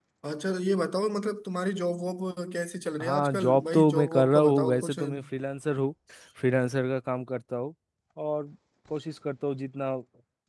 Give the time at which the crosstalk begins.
3.0 s

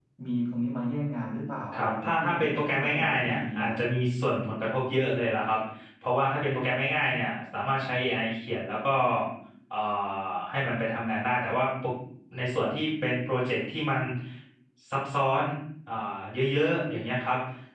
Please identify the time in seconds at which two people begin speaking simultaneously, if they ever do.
1.7 s

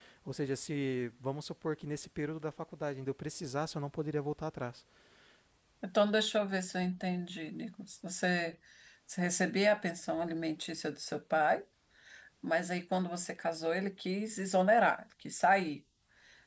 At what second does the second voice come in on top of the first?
none

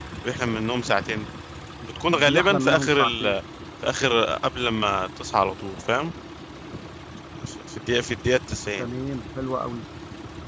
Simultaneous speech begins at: 2.1 s

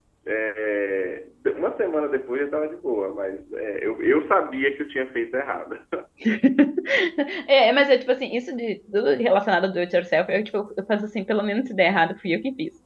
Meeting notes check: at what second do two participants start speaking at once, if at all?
none

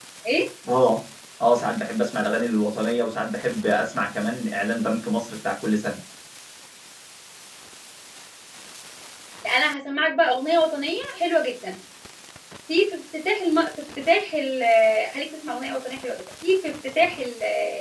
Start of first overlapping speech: none

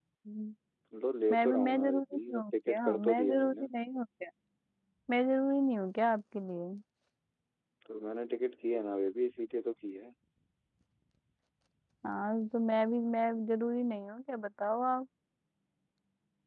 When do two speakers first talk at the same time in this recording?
1.3 s

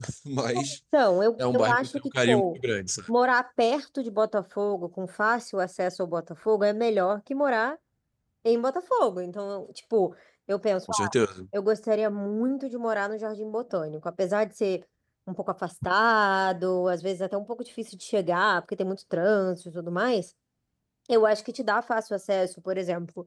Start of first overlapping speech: 1.4 s

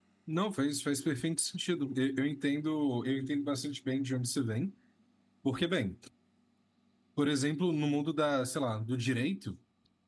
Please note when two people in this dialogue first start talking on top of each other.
none

